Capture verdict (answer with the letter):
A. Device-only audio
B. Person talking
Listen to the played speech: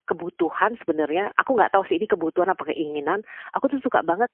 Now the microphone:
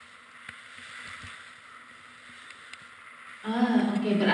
B